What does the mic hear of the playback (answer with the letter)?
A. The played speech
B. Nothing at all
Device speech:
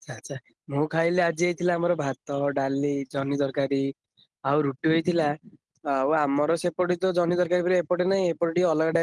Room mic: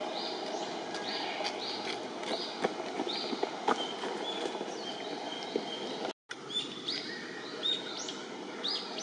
B